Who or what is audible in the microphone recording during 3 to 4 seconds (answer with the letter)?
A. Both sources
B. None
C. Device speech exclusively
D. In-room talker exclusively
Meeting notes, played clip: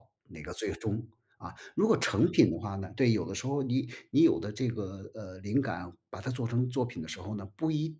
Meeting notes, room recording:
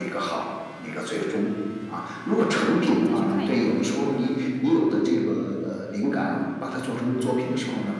A